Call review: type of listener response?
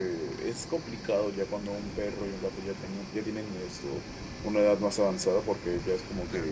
listening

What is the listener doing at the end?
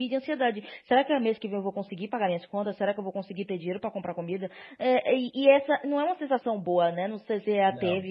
listening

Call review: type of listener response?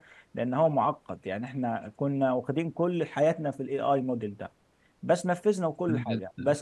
listening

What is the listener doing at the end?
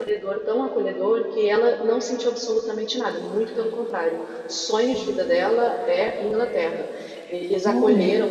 listening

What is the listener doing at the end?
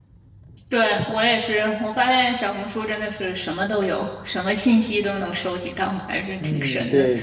taking over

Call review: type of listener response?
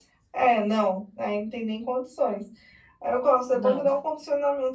listening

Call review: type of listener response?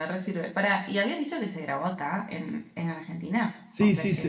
taking over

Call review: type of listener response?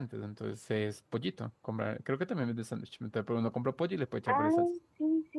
taking over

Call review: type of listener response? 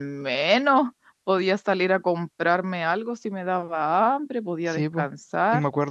taking over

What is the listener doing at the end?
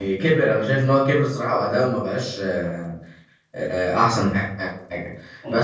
listening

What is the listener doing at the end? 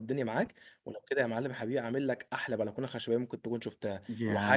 taking over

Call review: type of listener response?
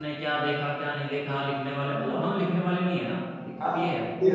taking over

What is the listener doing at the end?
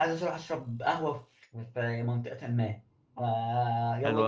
listening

